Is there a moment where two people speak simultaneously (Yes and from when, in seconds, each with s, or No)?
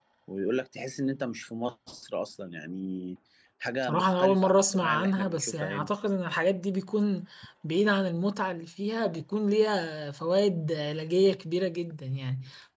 Yes, from 3.8 s